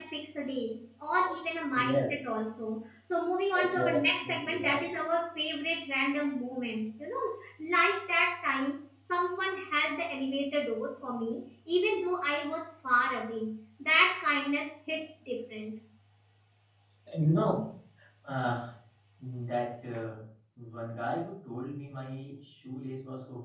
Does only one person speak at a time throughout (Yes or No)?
No